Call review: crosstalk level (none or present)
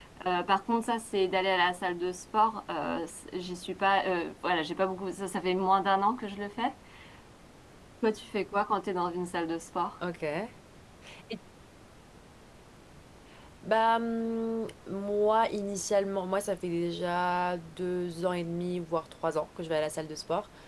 none